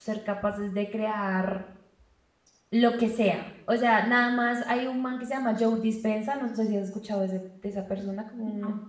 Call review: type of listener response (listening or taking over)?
listening